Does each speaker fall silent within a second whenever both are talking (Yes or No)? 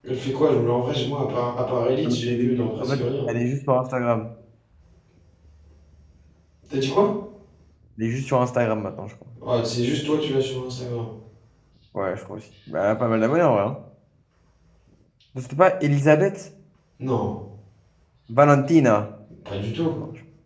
No